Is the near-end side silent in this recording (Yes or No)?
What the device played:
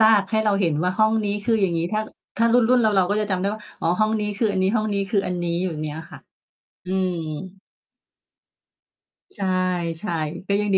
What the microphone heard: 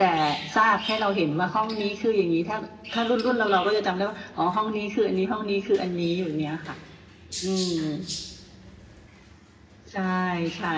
Yes